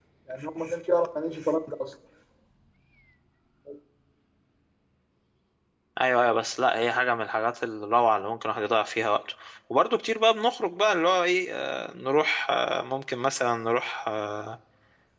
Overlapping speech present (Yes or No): No